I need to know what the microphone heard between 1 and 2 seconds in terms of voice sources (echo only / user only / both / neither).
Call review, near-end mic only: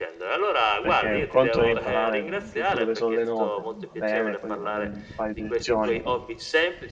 both